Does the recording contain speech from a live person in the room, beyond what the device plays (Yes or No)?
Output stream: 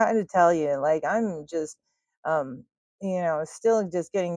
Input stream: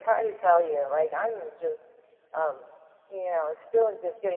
No